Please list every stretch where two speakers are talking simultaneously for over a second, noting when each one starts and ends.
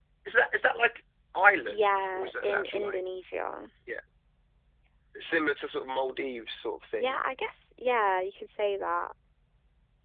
1.7-3.0

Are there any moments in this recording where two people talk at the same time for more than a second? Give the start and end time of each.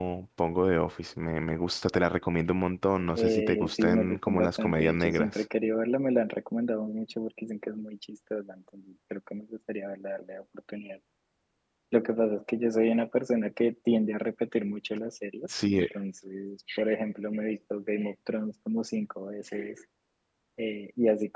3.2-5.4

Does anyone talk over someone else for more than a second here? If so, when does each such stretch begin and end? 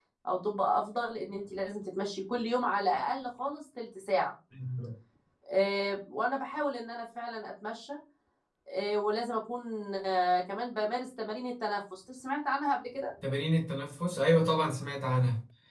none

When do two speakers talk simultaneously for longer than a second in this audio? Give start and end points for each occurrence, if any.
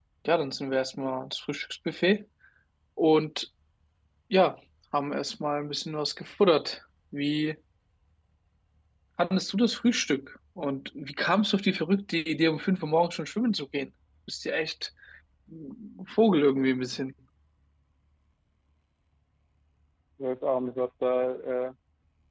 none

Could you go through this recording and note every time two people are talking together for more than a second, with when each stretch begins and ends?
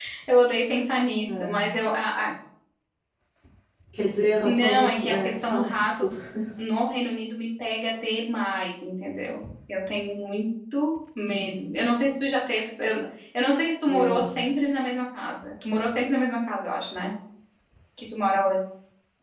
4.4-6.1

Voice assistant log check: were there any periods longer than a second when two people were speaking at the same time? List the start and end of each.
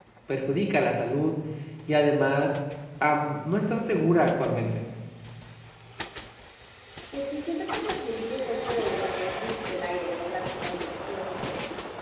none

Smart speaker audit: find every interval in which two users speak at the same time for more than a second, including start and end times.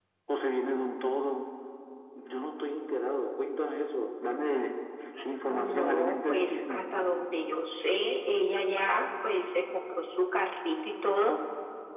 5.5-6.9

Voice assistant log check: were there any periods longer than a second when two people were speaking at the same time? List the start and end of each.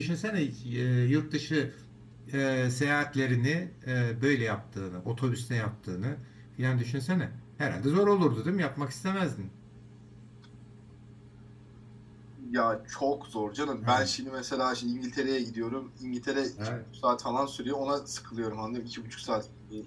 none

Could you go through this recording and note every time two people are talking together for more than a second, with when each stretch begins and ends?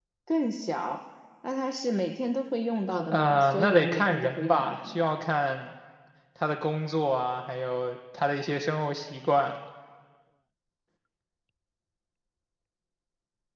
3.1-5.0

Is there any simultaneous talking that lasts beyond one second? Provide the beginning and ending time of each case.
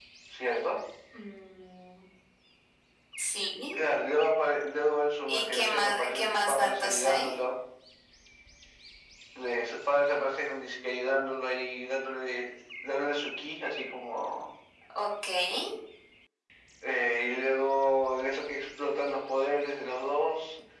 5.3-7.3

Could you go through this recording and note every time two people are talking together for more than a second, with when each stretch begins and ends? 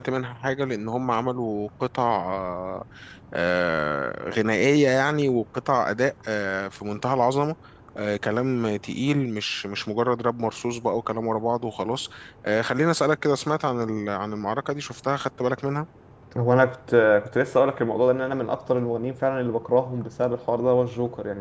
none

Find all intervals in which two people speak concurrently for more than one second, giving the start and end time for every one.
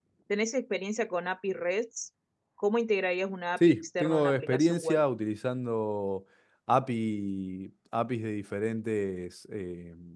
3.6-5.0

